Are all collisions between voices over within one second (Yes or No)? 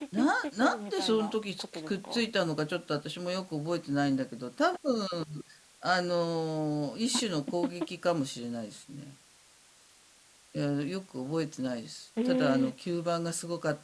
No